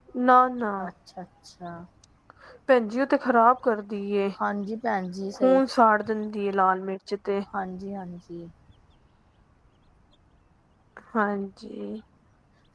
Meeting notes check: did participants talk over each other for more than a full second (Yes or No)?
No